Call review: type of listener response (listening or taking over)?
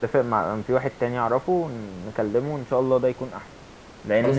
listening